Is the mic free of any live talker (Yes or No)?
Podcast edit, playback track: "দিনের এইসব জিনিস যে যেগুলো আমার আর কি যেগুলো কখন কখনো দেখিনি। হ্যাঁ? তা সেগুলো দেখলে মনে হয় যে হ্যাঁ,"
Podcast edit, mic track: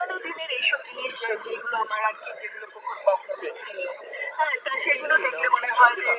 No